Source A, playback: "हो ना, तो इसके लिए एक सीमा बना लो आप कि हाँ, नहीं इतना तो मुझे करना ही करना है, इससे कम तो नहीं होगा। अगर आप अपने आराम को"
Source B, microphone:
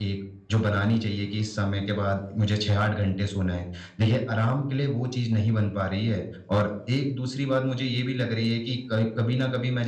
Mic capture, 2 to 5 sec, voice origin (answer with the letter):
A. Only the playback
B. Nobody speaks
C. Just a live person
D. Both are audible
C